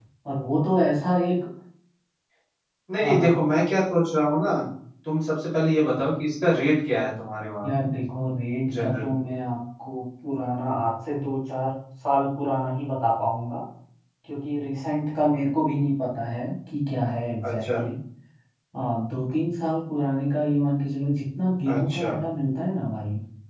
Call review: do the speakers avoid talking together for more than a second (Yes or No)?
Yes